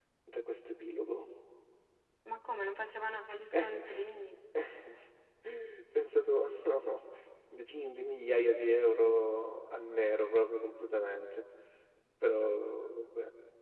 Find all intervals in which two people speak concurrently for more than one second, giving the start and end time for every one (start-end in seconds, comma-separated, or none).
none